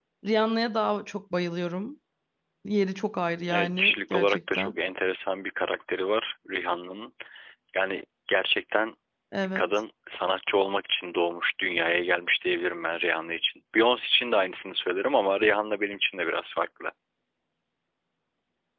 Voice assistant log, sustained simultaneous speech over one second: present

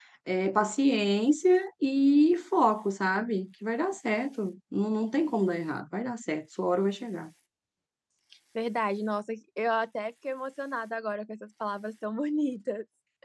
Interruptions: none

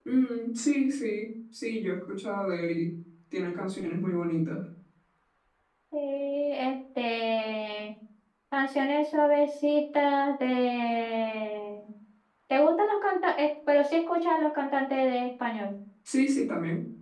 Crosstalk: none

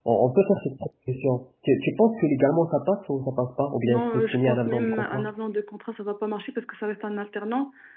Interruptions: present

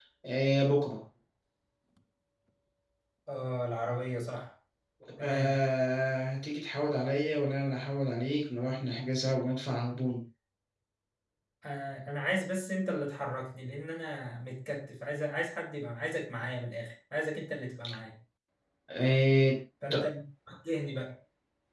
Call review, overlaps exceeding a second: none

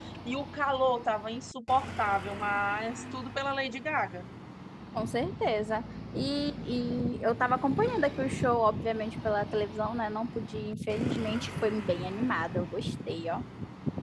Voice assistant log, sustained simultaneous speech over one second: none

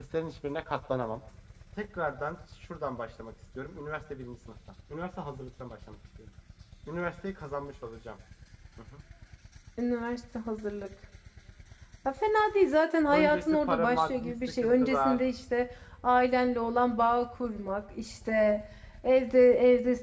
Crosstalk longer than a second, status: present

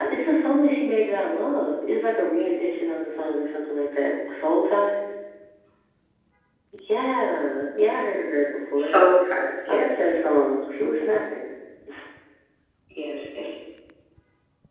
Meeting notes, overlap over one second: none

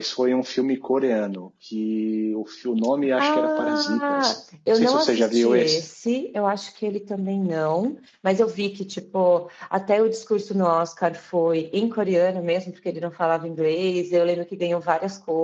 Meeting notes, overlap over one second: present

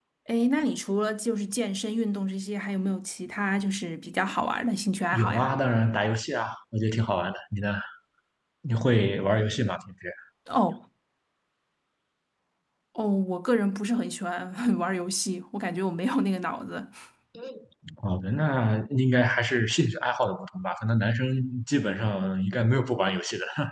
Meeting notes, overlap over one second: none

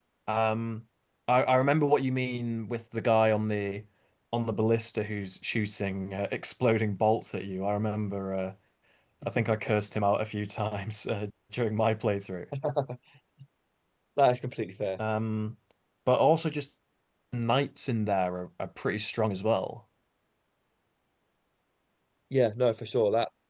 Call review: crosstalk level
none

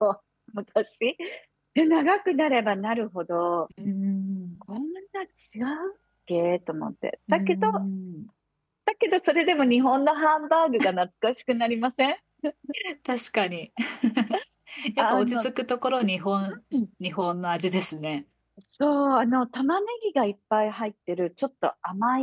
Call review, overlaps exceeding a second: none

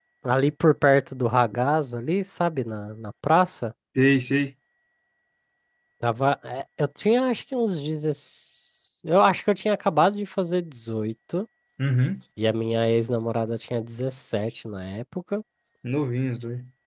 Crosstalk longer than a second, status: none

